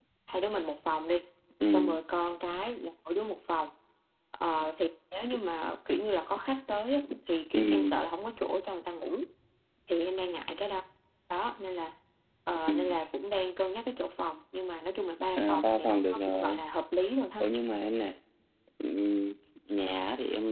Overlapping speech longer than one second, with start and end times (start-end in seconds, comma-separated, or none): 15.4-16.6